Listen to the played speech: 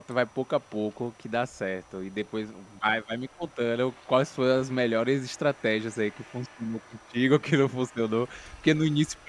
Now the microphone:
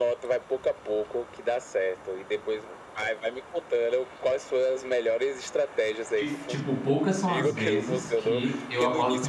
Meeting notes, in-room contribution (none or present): present